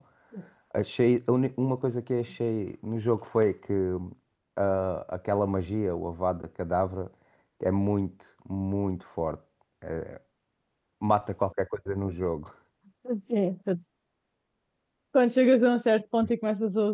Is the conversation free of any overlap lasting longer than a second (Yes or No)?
Yes